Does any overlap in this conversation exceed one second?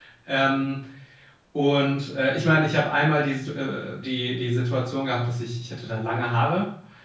No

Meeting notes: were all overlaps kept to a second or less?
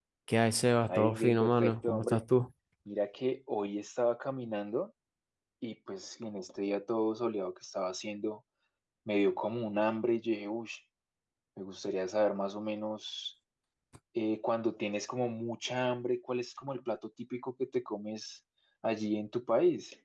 No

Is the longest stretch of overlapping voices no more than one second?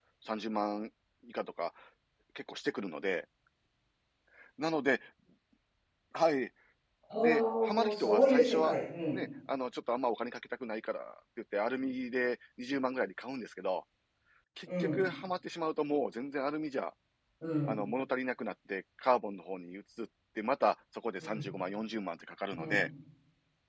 No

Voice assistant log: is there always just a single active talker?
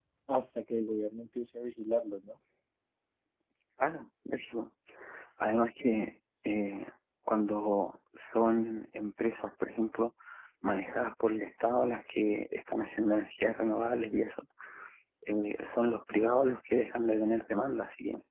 Yes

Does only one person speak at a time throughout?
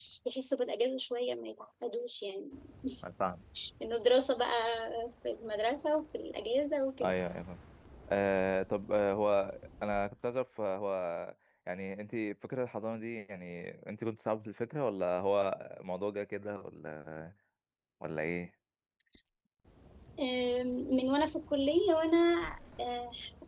Yes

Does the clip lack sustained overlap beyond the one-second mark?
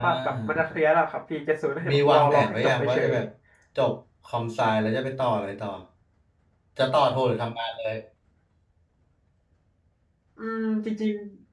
No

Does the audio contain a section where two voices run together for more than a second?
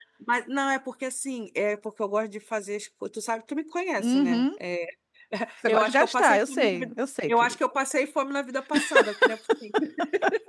Yes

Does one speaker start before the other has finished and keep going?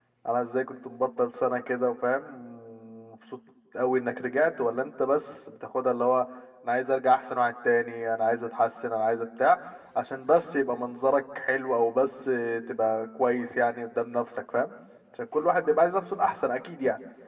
No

